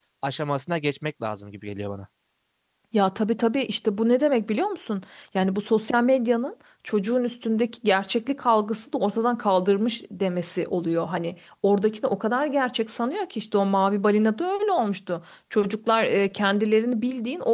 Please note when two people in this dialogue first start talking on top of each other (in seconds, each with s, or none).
none